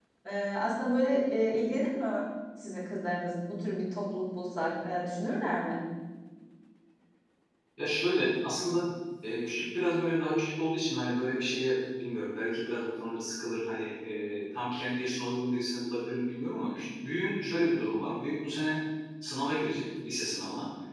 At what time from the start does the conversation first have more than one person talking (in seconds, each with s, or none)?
none